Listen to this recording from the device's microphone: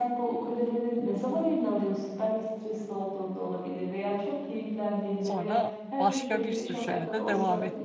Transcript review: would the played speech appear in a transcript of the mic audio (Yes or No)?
Yes